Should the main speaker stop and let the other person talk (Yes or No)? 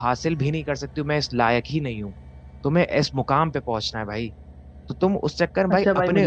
Yes